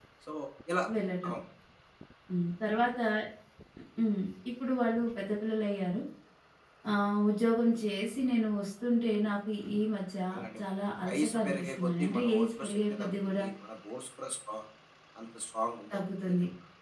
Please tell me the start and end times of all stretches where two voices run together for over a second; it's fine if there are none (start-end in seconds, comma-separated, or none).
11.1-13.4